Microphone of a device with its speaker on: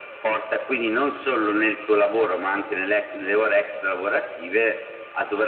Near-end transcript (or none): none